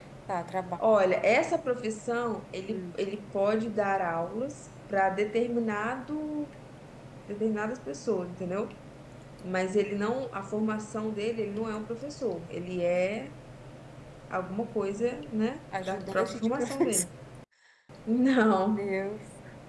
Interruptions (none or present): present